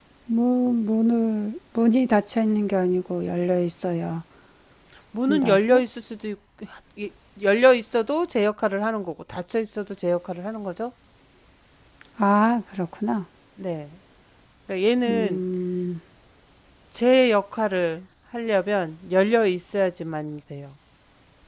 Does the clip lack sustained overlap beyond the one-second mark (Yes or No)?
Yes